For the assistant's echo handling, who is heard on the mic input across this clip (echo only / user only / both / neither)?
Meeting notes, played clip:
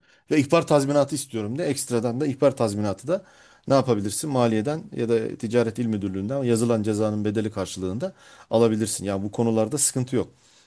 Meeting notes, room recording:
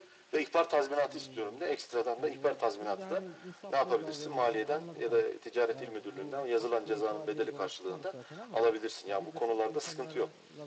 both